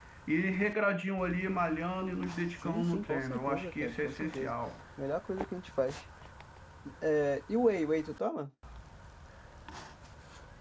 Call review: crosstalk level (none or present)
present